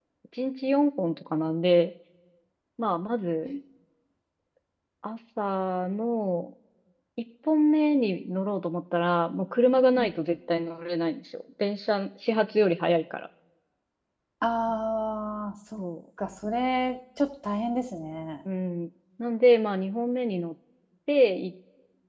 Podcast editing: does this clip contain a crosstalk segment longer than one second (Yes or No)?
No